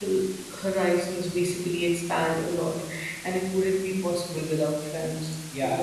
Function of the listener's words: taking over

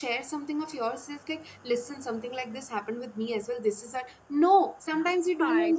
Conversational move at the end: listening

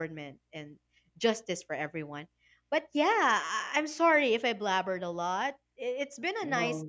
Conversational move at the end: listening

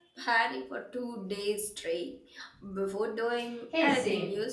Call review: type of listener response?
taking over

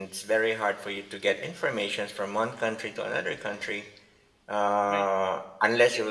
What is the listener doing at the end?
listening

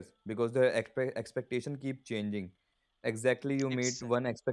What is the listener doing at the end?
listening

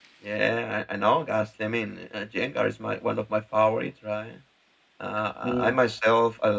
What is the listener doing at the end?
listening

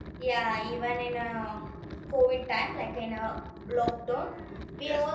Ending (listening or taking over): listening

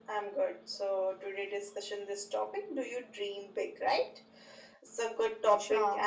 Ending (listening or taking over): listening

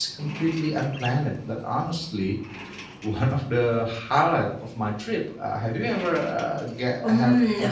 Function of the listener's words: taking over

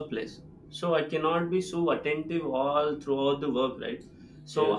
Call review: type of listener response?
listening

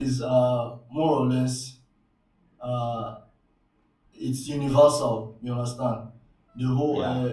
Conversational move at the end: listening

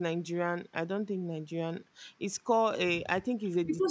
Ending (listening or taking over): taking over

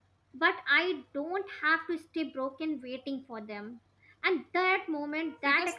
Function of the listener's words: listening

